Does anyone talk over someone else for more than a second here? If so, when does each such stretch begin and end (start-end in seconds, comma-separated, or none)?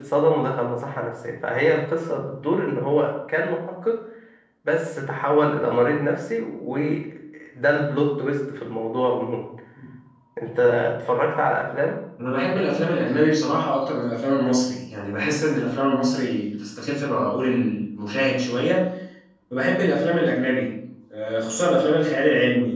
none